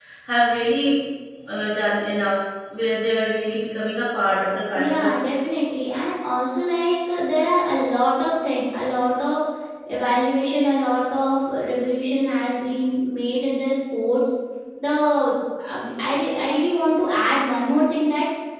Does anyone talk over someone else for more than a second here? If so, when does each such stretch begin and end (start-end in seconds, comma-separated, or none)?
none